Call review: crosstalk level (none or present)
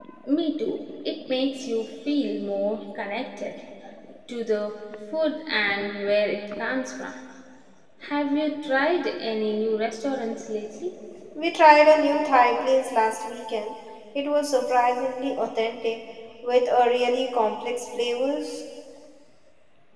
none